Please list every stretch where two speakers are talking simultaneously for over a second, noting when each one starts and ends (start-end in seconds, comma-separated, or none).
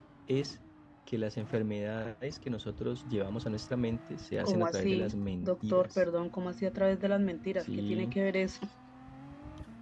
4.4-6.0